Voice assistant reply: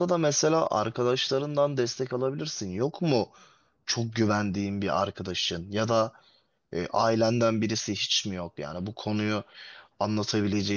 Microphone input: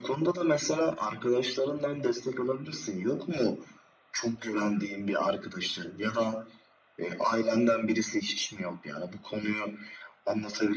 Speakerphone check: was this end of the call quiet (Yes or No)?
Yes